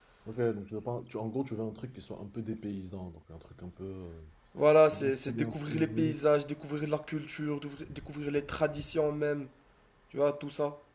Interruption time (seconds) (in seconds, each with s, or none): 4.9 s